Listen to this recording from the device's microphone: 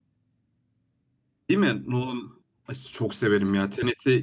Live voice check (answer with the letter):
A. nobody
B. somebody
B